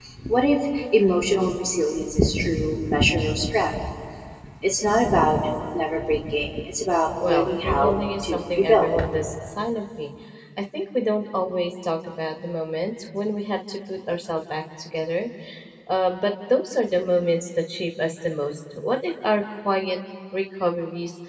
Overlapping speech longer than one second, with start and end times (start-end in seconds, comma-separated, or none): 7.2-8.9